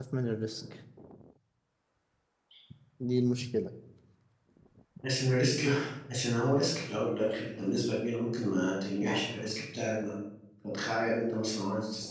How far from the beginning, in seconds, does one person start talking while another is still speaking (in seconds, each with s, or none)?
none